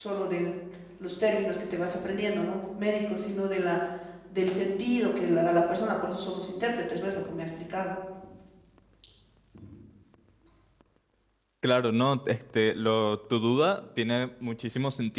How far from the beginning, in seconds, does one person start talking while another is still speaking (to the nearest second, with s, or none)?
none